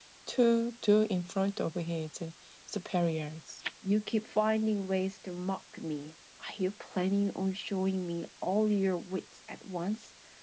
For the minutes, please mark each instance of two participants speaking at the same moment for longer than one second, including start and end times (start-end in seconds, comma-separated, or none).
none